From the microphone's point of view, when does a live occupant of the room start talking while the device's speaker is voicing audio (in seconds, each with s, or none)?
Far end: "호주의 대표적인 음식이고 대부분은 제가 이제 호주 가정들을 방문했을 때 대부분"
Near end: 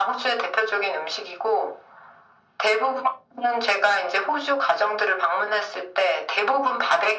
none